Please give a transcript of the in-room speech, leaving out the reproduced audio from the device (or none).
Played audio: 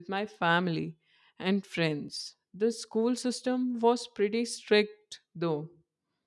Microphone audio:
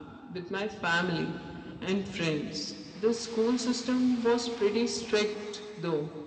none